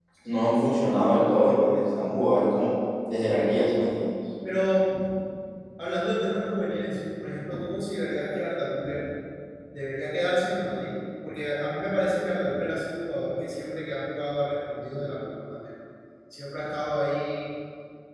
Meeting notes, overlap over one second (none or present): none